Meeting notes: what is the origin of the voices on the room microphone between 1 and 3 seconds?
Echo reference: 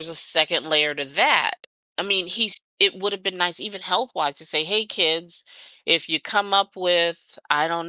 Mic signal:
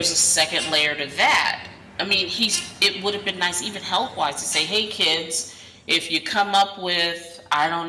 echo only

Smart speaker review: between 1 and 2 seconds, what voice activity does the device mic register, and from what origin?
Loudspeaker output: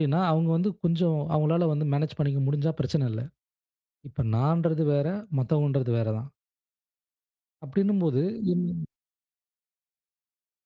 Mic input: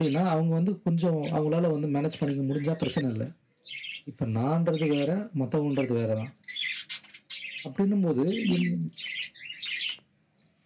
echo only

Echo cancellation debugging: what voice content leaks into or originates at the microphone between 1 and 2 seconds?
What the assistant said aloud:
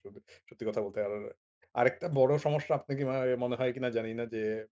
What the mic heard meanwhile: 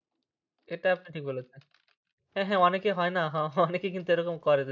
user only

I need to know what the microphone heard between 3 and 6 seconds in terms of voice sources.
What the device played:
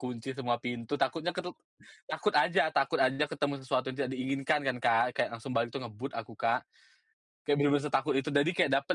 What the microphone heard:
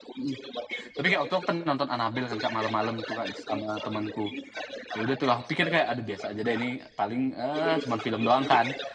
both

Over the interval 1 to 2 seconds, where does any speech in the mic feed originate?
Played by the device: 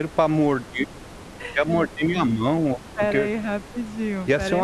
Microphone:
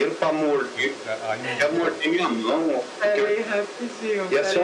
both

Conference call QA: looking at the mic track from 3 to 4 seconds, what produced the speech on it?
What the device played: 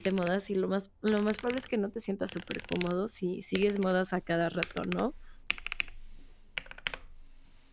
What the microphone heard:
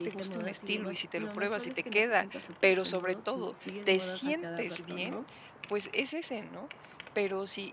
both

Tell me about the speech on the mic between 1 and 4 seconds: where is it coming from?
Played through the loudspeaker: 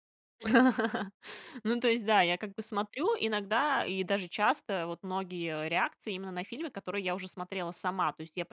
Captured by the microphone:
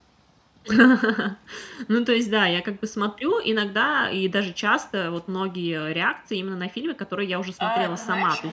echo only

